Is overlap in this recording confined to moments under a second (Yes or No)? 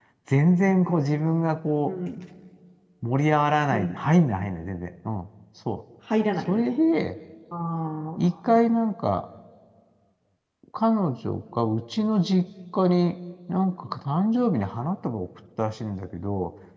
Yes